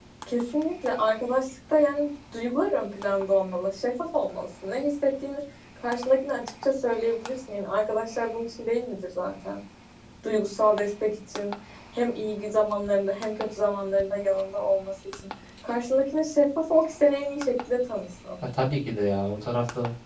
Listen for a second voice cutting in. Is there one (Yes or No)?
No